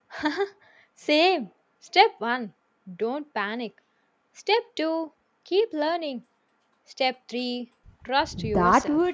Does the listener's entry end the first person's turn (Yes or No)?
Yes